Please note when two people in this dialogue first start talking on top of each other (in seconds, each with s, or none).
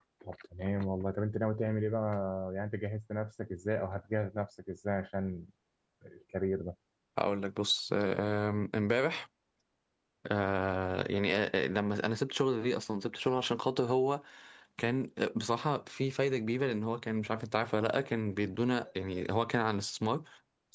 none